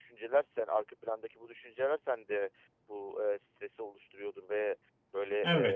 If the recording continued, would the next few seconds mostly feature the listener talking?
No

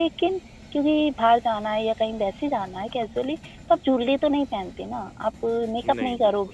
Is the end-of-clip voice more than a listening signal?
No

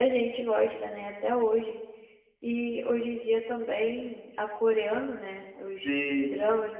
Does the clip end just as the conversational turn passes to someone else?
No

